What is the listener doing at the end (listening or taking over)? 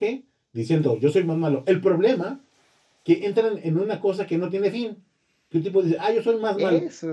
listening